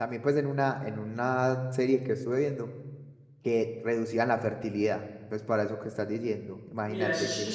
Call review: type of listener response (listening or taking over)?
taking over